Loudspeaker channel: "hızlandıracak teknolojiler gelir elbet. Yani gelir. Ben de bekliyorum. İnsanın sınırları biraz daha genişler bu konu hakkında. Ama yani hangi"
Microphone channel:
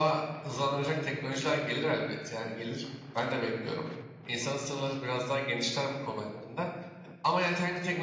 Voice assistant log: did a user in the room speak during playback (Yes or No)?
No